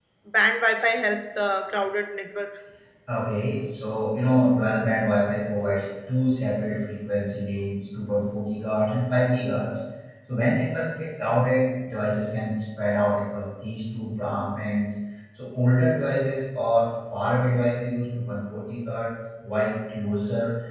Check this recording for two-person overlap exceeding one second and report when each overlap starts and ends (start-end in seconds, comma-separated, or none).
none